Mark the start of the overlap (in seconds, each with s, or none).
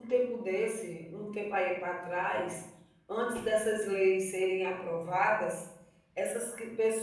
none